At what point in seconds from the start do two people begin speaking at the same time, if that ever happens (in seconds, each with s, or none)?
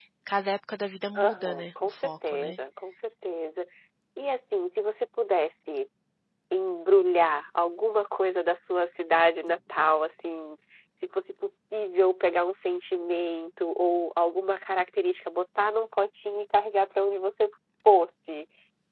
1.2 s